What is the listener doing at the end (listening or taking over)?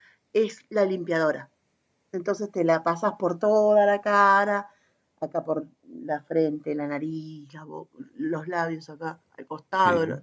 taking over